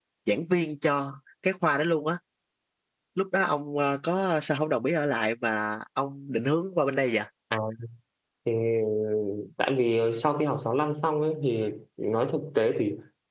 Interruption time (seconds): none

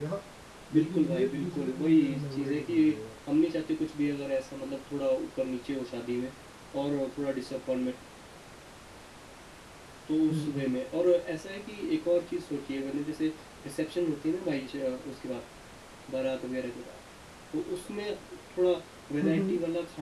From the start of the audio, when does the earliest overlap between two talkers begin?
1 s

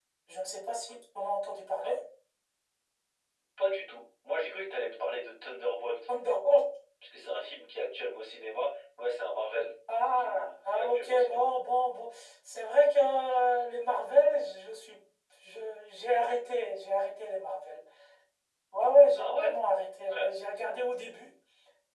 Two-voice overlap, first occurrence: 10 s

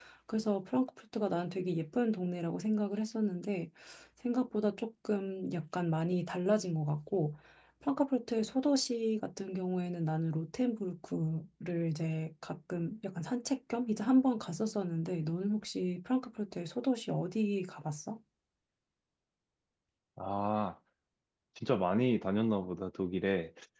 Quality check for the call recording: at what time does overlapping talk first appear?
none

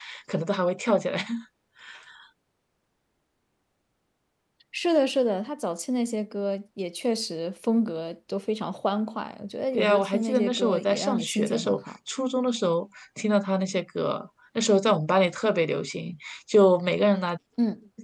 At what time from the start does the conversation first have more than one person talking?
10 s

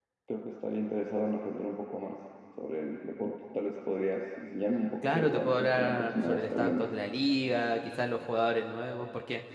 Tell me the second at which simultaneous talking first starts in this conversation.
5 s

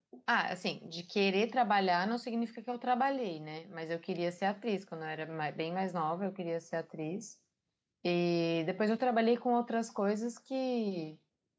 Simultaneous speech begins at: none

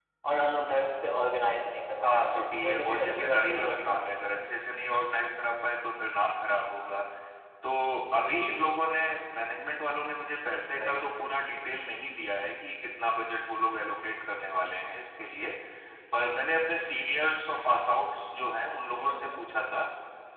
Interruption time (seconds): 2 s

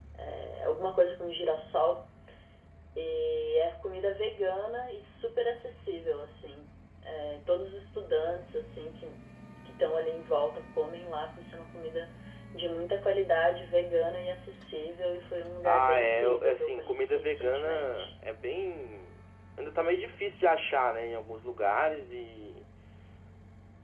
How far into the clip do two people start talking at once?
16 s

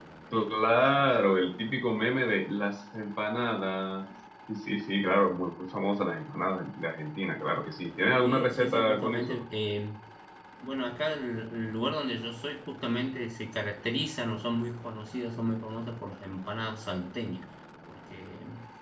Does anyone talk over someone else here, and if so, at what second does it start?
8 s

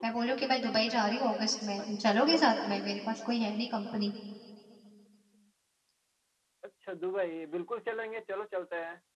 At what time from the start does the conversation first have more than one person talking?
none

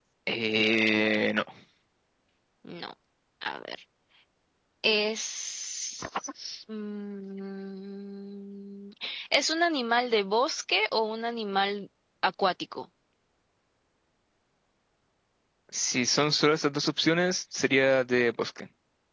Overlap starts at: none

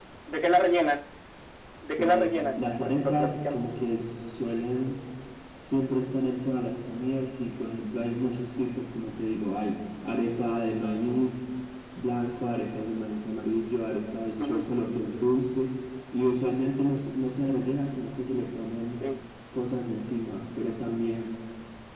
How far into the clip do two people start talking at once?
2 s

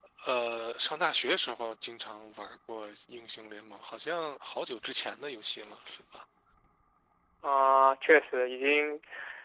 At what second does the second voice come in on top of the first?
none

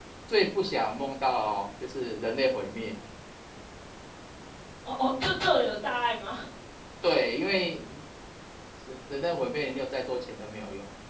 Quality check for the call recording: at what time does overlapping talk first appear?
none

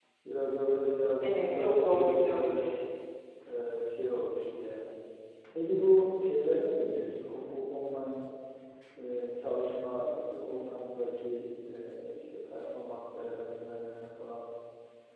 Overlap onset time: 1 s

